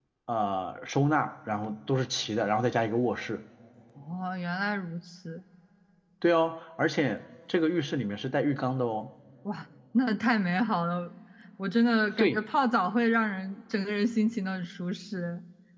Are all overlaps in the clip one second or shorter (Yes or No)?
Yes